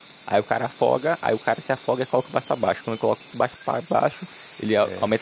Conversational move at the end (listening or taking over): listening